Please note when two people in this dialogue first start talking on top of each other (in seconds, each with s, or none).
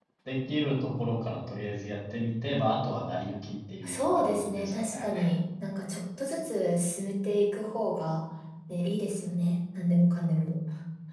3.8 s